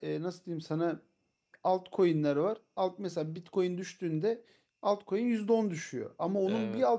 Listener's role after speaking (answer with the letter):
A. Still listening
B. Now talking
A